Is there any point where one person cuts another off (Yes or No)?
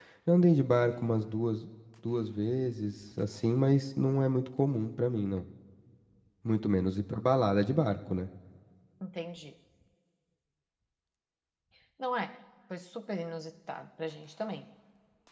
No